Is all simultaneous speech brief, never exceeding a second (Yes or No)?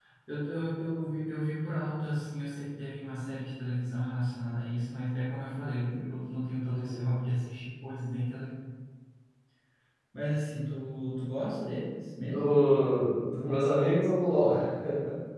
Yes